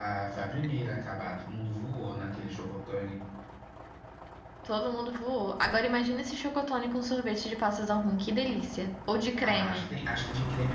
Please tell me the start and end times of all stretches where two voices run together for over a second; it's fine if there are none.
none

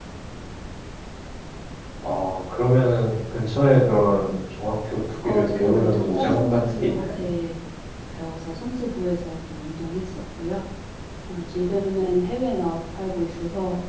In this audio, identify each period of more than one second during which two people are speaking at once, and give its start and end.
5.2-7.3

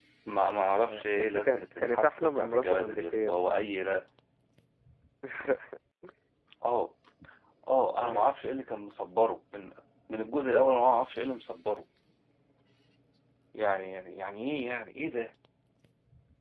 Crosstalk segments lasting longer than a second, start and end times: 0.8-3.6

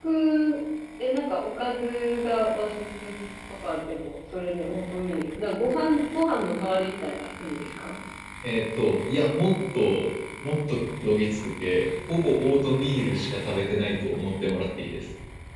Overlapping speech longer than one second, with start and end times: none

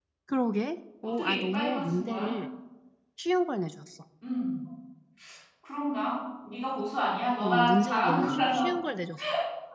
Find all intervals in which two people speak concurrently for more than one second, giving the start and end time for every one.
1.0-2.3, 7.4-8.6

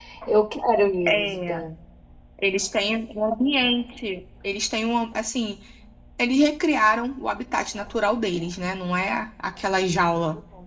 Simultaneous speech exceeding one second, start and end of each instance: none

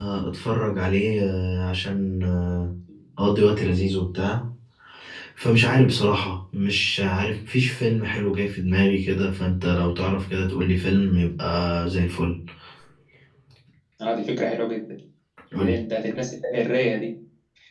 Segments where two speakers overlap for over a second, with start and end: none

